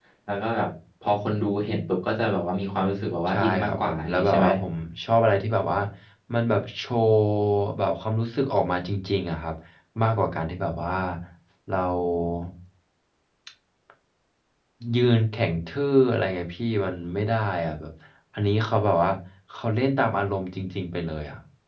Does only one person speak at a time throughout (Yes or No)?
No